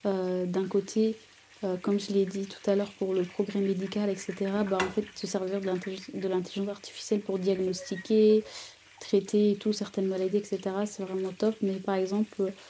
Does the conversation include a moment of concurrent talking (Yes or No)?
No